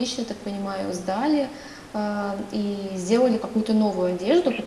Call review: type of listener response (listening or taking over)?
listening